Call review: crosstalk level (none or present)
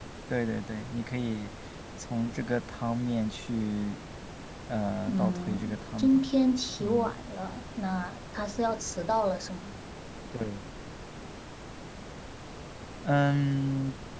present